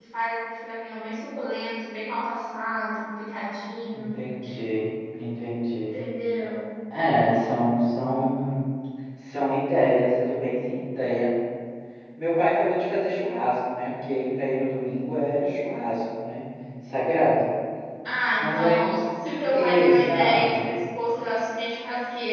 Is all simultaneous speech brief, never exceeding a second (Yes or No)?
No